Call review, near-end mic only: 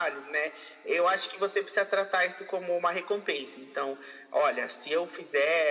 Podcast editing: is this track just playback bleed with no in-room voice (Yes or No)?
Yes